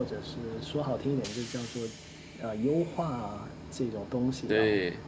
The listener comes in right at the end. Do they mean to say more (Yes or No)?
No